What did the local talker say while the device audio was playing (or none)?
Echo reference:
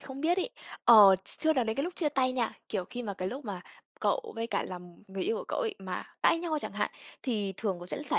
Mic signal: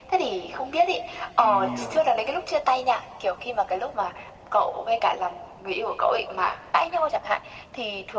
Thì, ờm,